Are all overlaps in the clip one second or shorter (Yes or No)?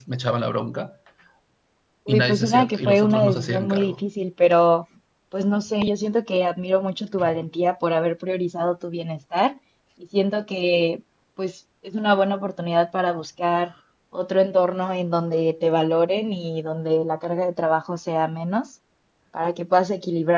No